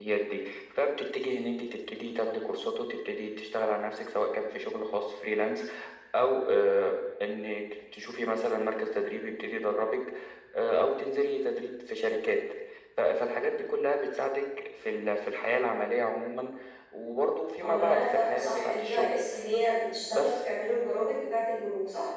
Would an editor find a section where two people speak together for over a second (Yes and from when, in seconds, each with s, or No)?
Yes, from 17.6 s